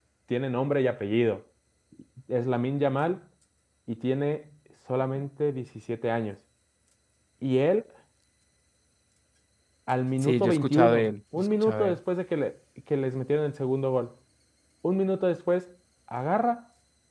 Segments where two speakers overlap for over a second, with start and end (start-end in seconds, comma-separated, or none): 10.2-12.0